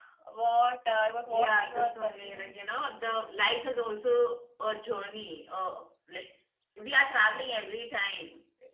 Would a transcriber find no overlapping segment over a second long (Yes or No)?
No